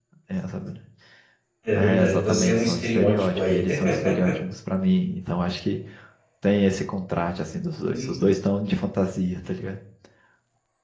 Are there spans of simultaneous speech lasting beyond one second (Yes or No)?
Yes